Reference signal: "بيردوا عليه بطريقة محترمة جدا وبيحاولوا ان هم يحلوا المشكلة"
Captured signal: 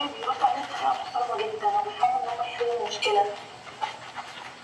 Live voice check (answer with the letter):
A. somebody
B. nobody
B